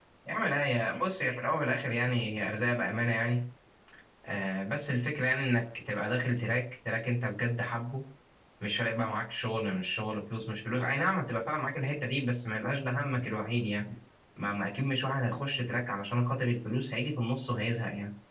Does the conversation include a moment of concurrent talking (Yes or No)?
No